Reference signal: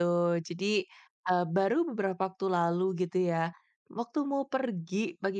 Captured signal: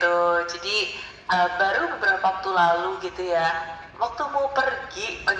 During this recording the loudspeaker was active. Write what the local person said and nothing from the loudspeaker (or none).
none